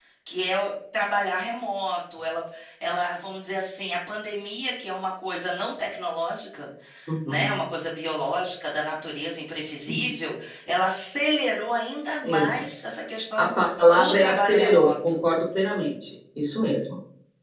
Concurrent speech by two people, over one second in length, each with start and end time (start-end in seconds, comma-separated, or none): 13.9-15.2